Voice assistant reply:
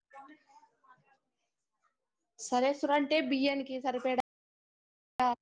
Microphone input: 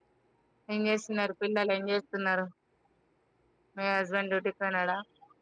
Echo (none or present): none